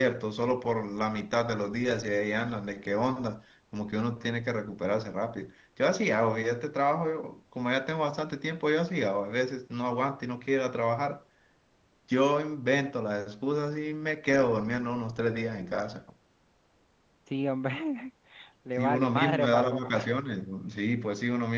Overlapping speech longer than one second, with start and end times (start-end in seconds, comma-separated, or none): 18.8-20.1